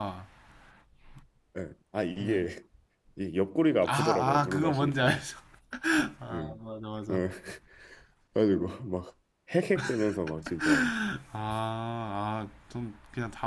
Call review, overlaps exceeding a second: present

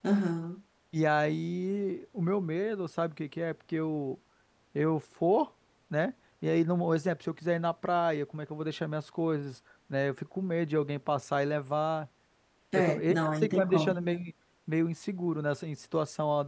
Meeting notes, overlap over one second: present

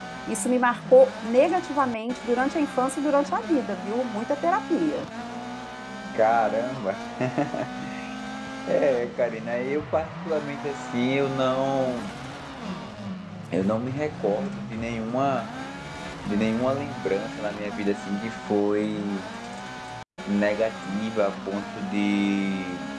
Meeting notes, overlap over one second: none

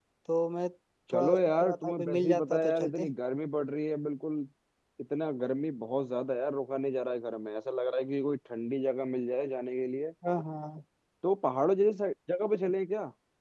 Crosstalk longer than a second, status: present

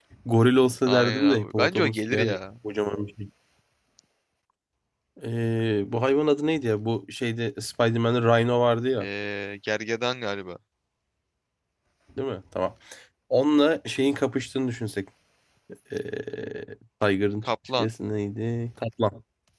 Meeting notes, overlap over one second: present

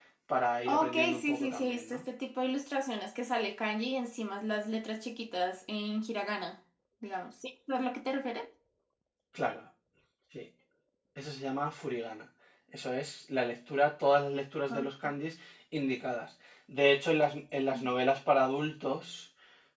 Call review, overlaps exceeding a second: present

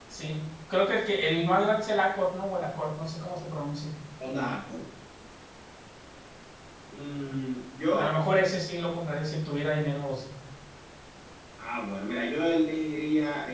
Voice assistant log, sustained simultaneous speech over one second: none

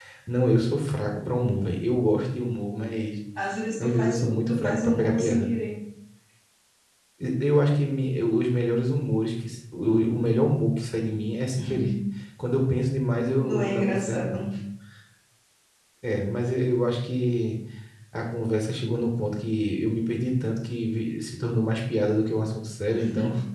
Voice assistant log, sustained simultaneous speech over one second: present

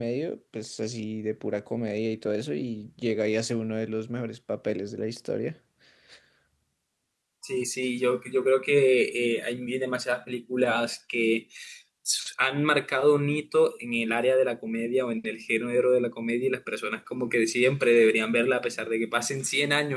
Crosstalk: none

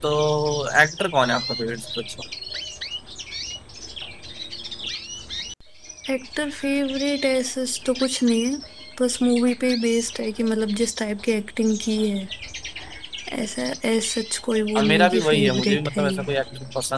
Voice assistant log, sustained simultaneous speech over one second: present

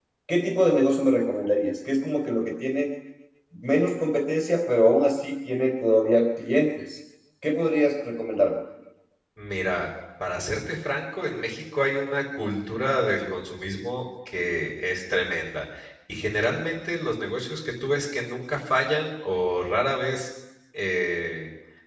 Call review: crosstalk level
none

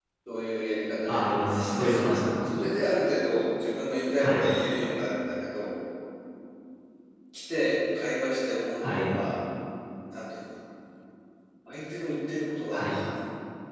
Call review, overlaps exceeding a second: present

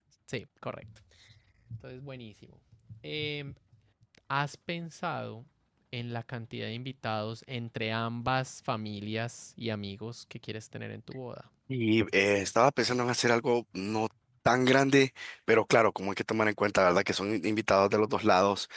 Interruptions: none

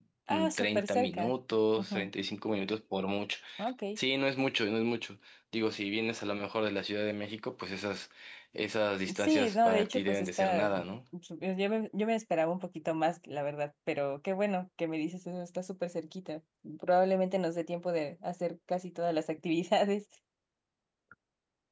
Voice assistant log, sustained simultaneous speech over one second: present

